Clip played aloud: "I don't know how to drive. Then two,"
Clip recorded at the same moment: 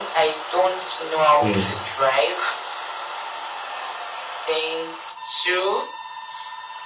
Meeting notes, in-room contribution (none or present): present